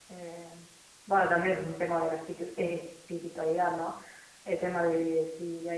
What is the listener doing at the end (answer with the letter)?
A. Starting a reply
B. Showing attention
B